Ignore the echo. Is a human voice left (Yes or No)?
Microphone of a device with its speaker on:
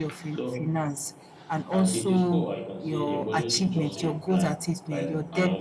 Yes